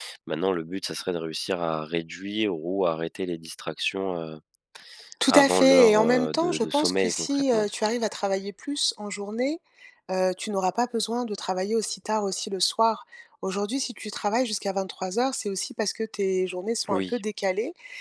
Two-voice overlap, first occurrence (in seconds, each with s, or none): 5.3 s